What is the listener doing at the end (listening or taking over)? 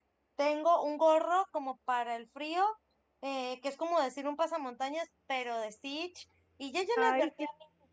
listening